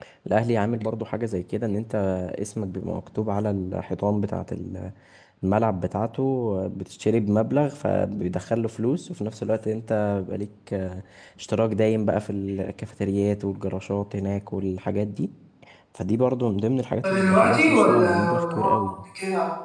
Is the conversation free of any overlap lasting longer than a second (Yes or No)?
No